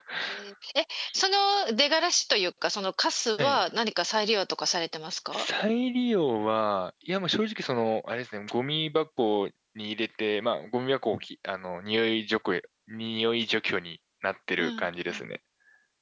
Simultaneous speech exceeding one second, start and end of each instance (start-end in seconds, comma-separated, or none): none